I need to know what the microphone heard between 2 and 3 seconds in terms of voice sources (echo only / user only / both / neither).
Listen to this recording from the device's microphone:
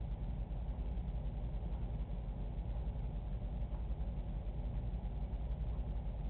neither